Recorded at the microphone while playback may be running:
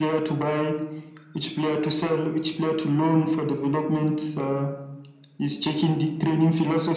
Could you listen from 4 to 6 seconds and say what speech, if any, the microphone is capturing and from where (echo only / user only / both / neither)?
echo only